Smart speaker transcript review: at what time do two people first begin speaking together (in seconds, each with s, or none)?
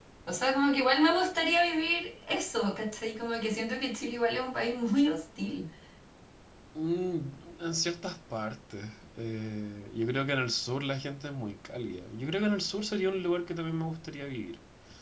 none